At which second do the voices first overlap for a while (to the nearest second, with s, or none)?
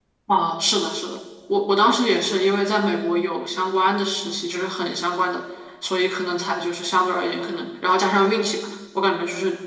none